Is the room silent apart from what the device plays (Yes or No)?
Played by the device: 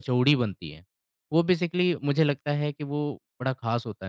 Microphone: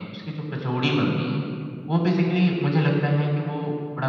Yes